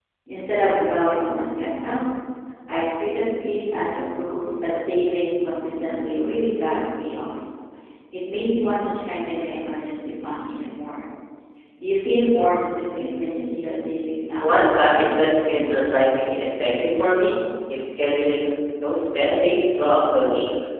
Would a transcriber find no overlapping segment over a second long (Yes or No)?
No